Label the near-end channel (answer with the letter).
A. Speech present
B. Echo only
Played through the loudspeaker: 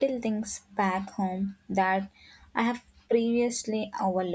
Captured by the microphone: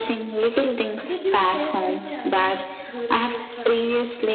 A